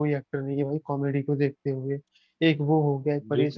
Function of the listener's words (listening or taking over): listening